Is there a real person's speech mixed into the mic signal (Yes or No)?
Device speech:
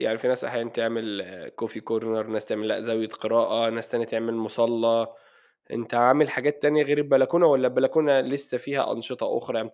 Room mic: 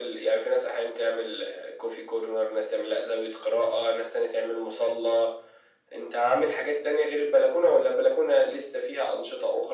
No